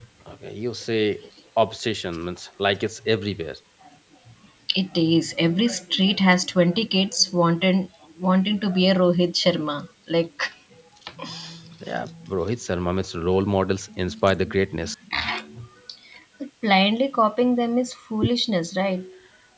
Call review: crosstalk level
none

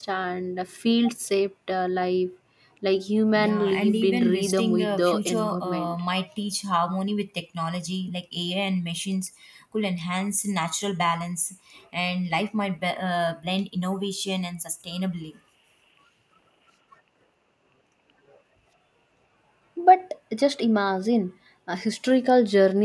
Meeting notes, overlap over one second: present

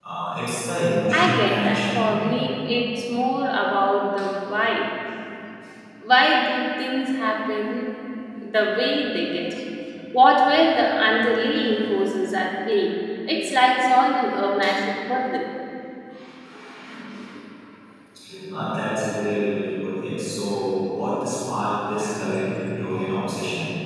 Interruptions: present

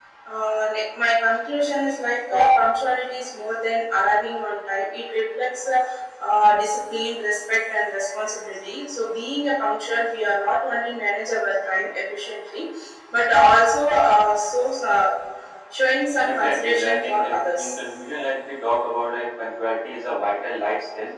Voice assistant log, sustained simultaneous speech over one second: present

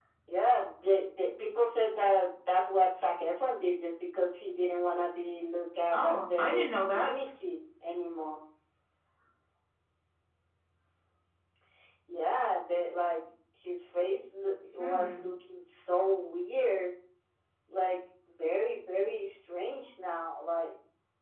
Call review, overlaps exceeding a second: present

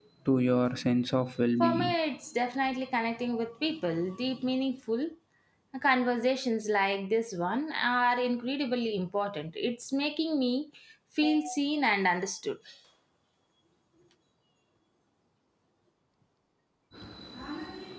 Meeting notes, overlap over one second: none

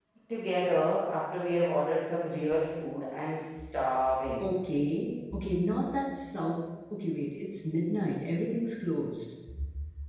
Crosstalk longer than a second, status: none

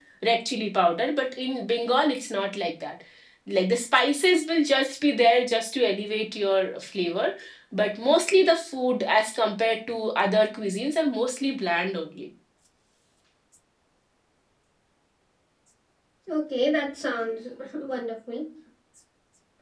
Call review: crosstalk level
none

